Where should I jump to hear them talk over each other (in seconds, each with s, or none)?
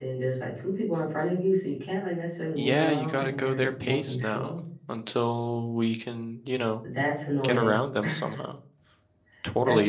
2.5 s